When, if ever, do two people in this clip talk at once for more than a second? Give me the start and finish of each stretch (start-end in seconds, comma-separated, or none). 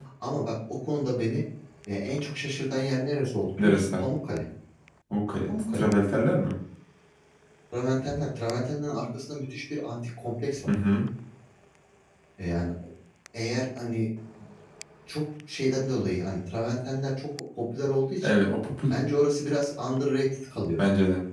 none